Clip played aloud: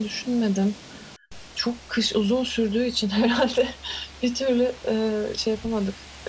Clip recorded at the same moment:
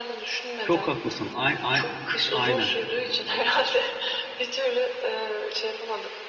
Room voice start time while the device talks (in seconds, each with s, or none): 0.6 s